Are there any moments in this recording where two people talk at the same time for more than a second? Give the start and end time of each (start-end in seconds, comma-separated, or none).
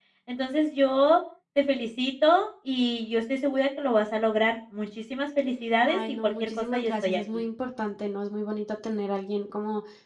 5.8-7.4